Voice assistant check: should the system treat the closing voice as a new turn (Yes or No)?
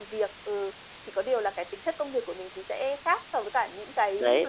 Yes